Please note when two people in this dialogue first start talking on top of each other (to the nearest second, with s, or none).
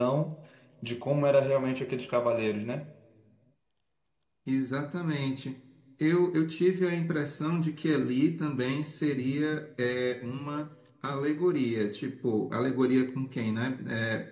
none